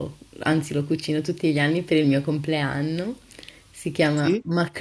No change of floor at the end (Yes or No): Yes